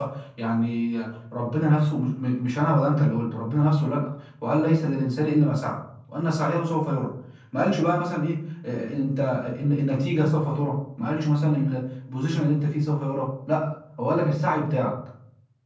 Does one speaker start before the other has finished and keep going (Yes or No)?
No